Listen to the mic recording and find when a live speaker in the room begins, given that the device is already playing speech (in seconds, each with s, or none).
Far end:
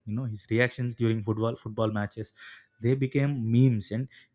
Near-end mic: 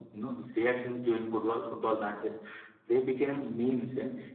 none